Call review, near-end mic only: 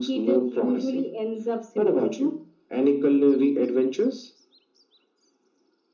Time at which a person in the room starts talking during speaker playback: none

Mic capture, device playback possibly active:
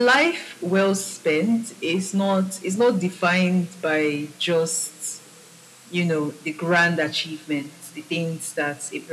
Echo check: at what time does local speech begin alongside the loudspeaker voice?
none

